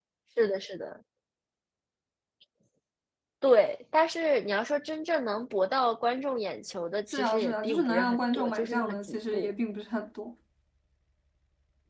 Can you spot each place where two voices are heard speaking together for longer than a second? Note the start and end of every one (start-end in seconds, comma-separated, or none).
7.1-9.5